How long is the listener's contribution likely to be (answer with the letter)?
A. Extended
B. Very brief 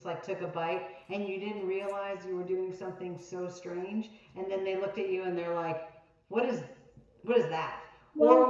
B